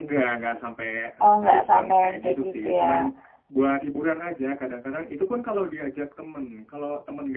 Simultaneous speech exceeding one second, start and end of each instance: 1.2-3.1

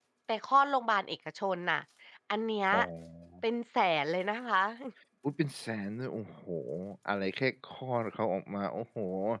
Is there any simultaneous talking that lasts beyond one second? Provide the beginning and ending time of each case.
none

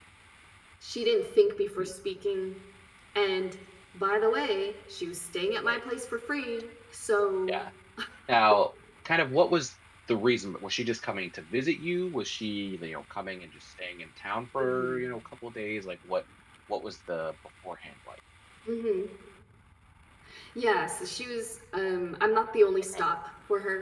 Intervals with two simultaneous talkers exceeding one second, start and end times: none

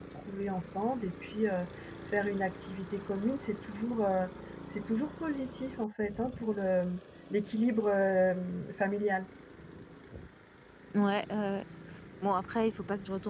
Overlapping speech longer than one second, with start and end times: none

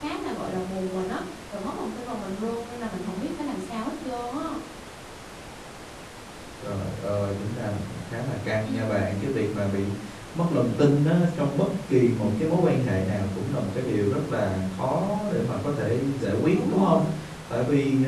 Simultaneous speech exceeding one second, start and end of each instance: none

